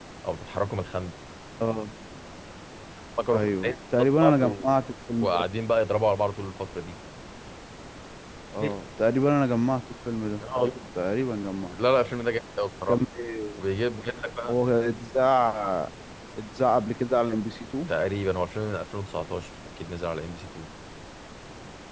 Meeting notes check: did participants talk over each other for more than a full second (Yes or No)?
Yes